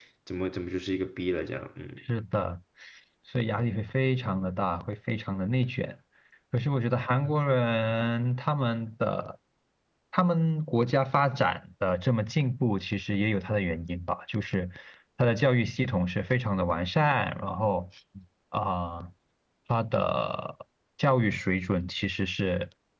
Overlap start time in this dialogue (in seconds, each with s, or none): none